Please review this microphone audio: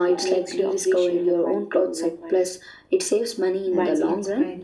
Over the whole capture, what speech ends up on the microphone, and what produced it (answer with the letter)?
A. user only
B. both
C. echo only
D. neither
B